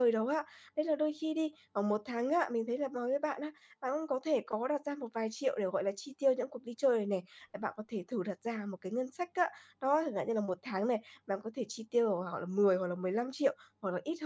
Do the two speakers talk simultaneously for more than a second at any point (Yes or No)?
No